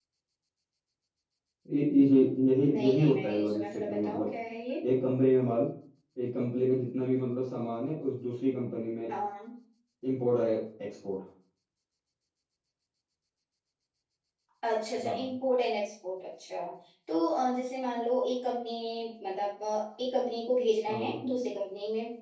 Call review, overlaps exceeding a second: present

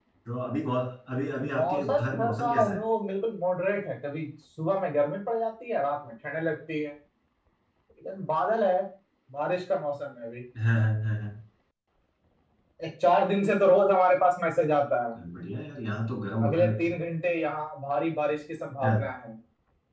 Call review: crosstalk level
present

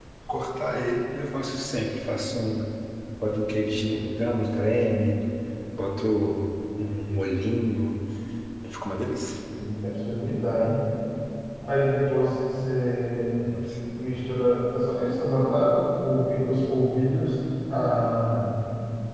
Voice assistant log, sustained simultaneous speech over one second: none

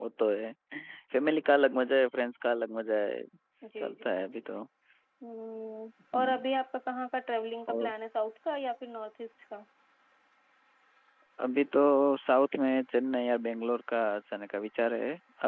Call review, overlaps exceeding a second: none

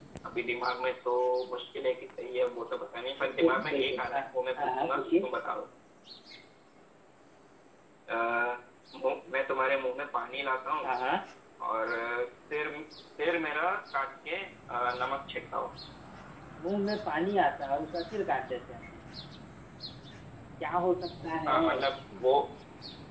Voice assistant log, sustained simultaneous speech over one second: present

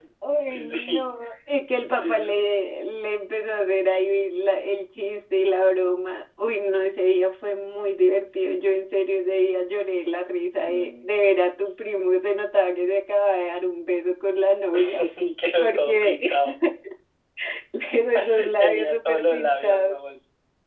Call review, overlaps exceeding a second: present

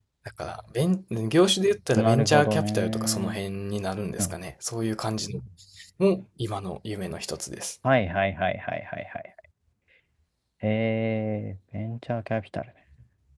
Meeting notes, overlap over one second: present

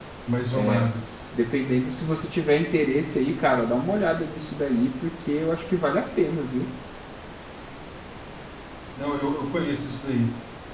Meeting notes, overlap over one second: none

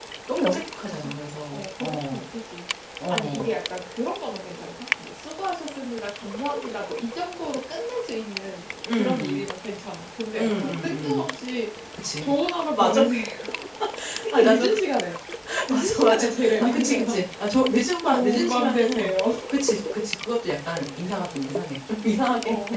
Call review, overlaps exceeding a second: present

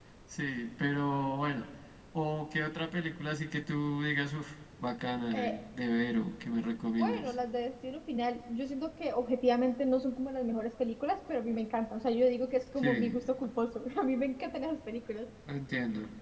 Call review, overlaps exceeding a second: none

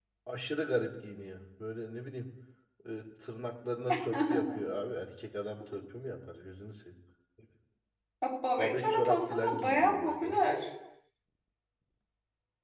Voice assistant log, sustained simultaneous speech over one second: present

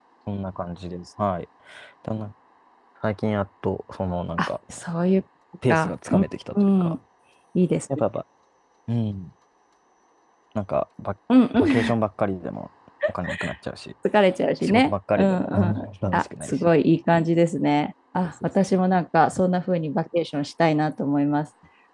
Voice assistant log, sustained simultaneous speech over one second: present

